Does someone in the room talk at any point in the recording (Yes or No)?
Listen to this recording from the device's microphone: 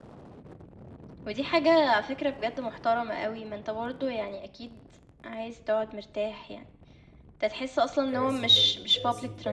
Yes